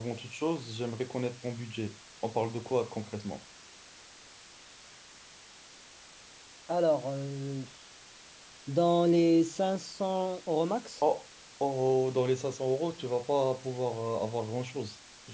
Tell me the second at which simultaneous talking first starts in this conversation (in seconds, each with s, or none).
none